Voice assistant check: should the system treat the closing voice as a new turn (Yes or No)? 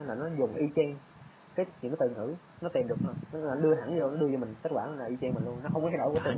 Yes